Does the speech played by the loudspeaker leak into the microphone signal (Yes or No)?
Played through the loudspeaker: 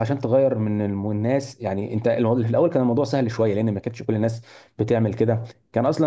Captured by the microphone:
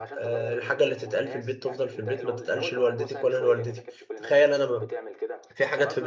Yes